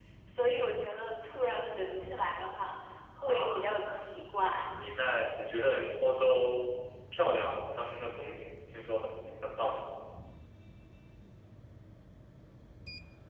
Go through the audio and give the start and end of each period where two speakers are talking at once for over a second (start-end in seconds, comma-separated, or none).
3.2-4.6